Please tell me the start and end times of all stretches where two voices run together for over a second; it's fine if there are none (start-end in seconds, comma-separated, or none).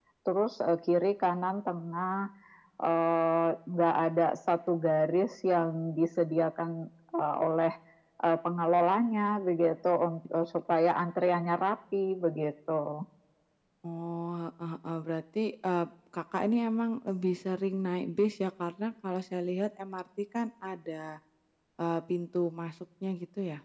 none